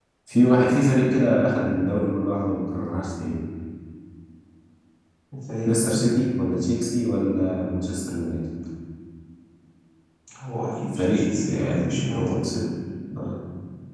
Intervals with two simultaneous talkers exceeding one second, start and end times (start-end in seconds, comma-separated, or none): 10.9-12.3